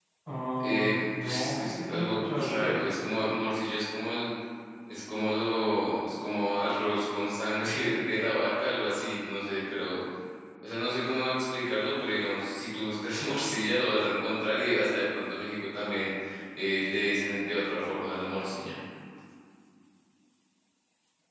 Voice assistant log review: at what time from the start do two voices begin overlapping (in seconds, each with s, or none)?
0.6 s